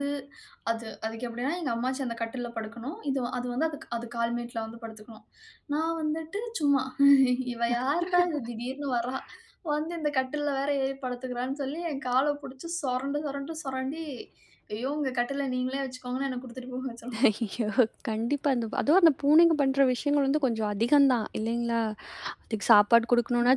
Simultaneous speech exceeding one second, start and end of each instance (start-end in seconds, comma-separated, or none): none